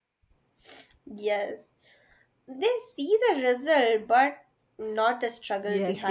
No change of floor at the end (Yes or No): No